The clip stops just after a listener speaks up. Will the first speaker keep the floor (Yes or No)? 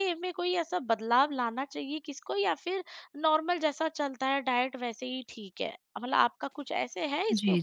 No